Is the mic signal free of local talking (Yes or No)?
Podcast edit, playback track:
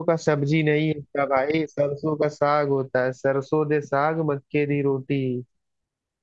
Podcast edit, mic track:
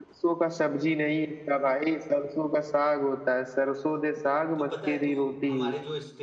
No